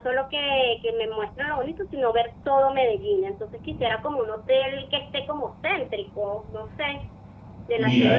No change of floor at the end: No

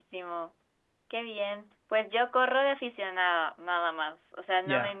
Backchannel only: Yes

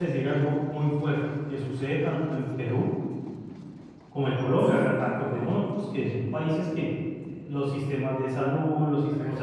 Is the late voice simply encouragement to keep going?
Yes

